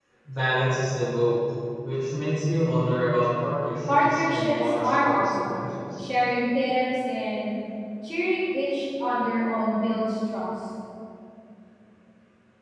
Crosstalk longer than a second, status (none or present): present